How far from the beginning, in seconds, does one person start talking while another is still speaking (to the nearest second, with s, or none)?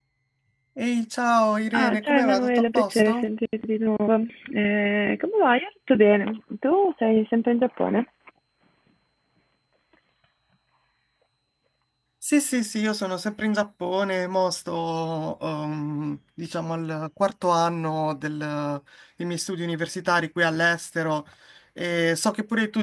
2 s